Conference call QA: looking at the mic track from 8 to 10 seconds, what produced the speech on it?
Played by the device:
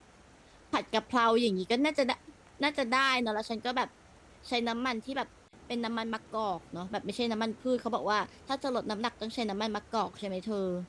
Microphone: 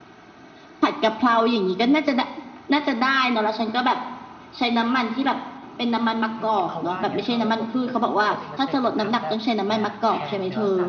both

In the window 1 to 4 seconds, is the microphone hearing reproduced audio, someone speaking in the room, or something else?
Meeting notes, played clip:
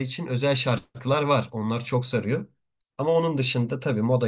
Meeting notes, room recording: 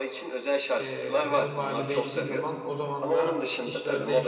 both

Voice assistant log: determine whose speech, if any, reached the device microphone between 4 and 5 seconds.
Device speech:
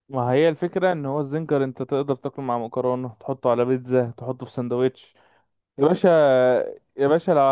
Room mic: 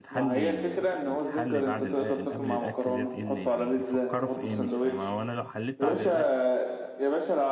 both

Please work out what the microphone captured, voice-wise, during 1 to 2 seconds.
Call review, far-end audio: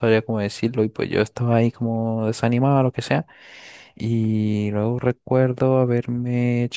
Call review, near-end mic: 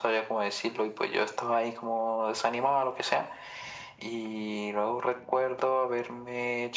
echo only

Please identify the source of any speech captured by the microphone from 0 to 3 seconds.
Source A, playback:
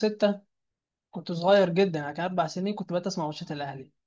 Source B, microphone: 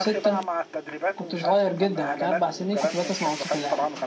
both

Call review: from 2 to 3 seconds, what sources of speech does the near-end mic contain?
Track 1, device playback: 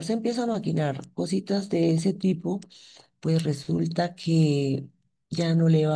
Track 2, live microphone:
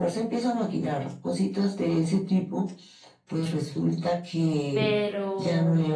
echo only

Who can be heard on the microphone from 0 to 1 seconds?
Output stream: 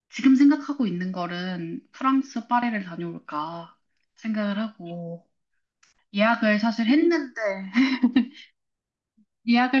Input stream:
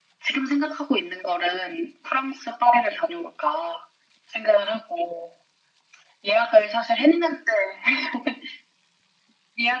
echo only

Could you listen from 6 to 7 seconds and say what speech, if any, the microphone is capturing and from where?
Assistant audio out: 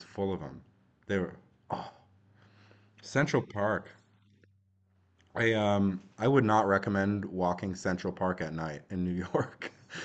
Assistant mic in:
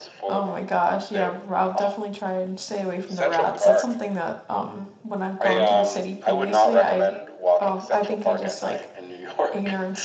both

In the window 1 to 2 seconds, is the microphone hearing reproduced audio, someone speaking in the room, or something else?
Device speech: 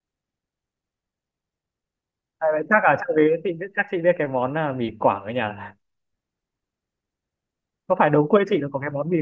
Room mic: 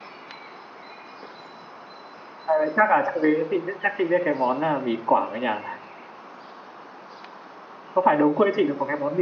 neither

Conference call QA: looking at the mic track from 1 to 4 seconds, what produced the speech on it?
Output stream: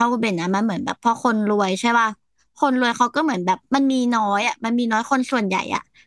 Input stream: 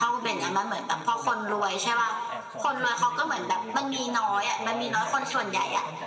both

